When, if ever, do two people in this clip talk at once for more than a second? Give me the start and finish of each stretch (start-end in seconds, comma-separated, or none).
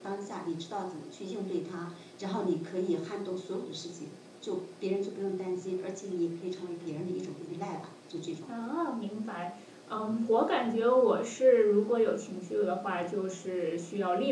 none